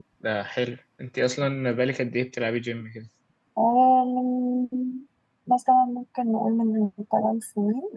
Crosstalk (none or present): none